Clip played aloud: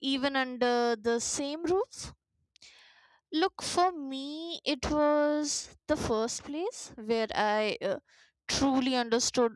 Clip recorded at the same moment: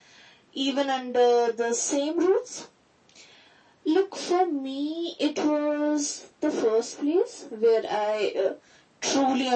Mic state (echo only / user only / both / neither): echo only